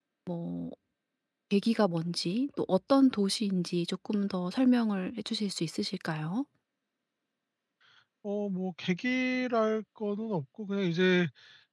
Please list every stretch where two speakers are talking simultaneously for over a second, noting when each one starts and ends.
none

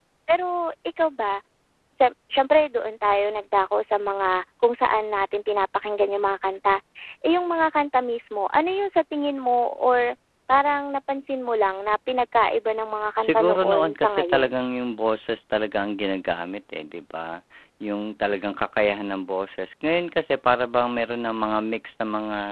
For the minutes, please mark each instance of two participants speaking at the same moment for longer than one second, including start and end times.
13.2-14.5

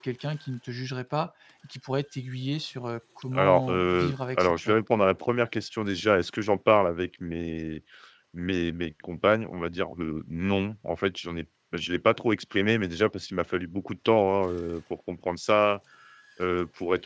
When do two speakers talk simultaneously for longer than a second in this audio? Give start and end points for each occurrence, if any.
3.3-4.8

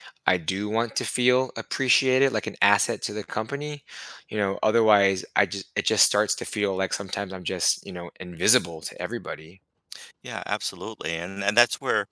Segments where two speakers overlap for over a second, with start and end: none

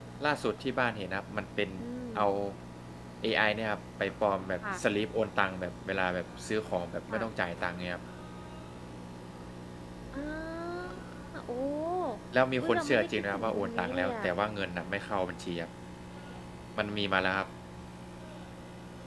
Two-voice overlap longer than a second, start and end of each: 12.6-14.3

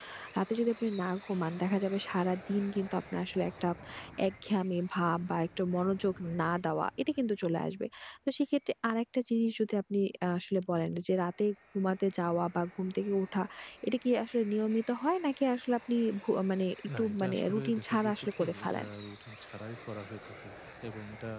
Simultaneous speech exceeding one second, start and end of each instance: 17.0-18.9

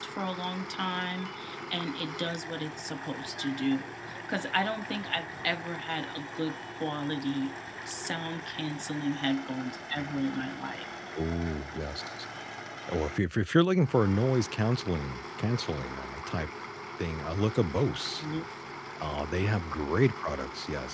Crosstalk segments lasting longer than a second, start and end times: none

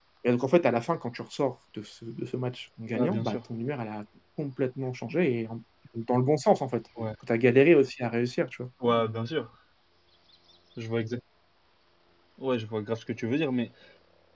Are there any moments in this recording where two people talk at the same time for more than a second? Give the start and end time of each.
none

